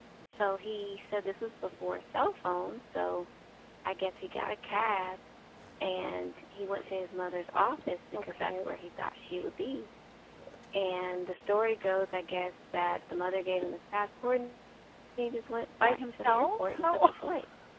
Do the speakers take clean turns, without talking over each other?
No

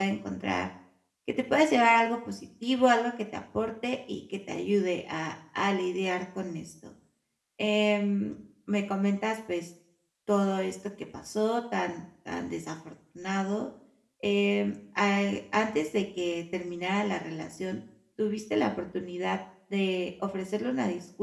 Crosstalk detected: No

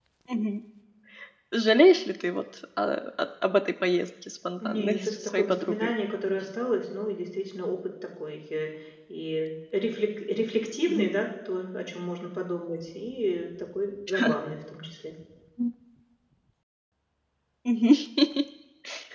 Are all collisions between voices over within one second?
No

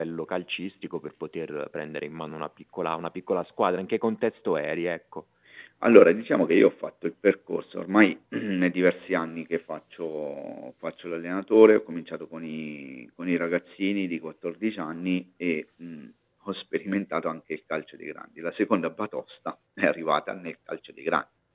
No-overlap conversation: Yes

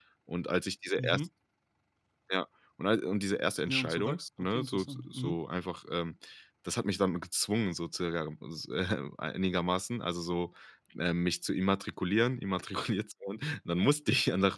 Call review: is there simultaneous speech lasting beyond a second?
Yes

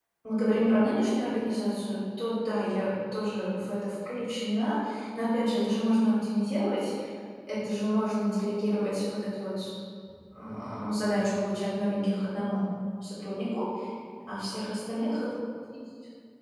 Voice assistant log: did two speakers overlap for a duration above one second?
No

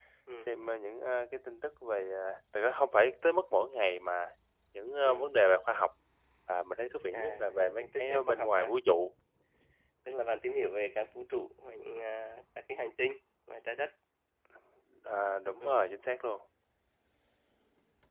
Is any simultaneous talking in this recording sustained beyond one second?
Yes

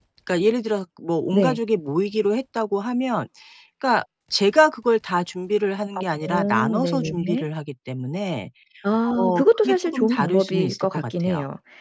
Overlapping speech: Yes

